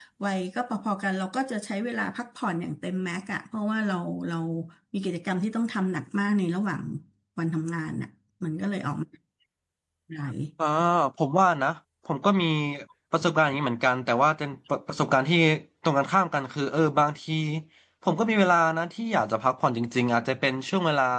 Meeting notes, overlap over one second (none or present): none